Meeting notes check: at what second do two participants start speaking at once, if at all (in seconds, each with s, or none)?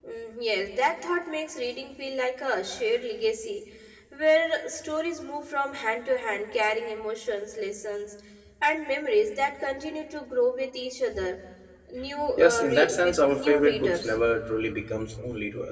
12.4 s